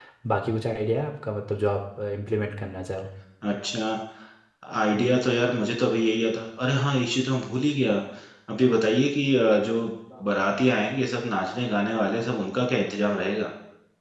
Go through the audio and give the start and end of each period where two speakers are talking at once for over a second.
none

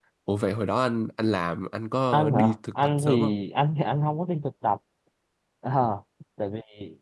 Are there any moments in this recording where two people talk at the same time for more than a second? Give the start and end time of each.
2.1-3.3

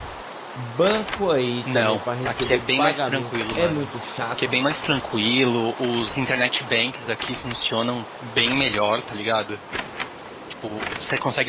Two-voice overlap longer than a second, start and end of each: 1.7-3.9

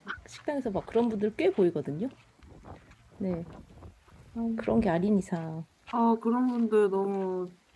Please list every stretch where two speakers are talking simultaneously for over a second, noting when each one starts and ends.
none

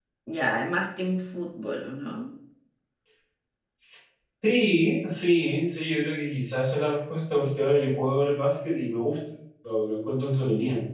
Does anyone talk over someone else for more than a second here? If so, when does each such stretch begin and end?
none

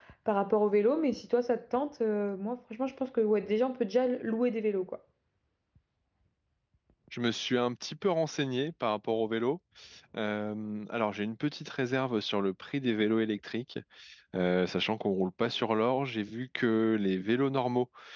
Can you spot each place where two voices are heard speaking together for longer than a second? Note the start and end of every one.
none

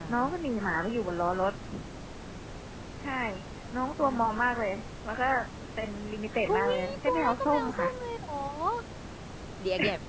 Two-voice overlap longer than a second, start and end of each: 6.5-7.9

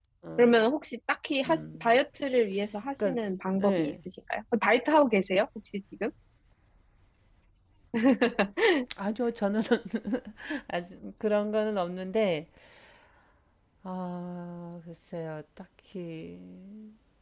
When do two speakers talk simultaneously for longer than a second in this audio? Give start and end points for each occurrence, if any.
none

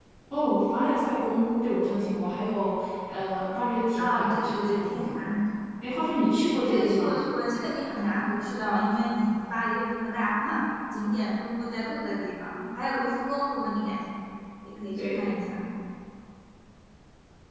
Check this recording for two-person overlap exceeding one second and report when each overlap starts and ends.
4.0-5.2

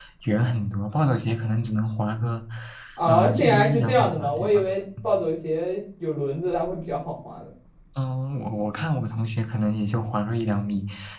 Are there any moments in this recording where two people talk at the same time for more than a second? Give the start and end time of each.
3.0-4.6

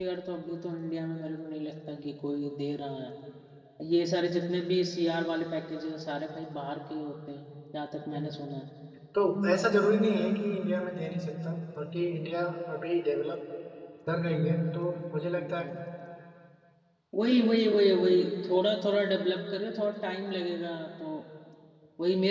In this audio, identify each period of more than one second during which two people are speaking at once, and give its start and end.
none

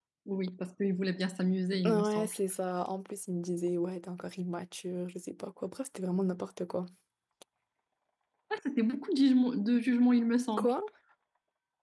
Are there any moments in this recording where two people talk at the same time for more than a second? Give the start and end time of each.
none

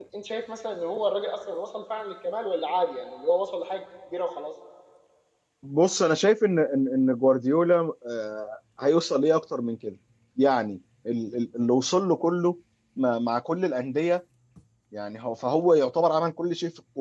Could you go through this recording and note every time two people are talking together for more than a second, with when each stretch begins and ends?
none

